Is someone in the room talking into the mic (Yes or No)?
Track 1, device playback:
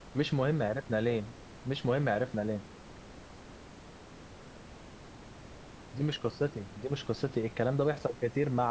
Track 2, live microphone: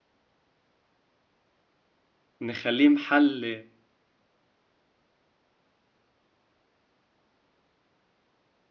Yes